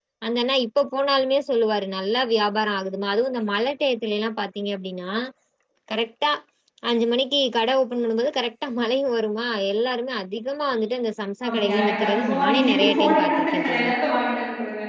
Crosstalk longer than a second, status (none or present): present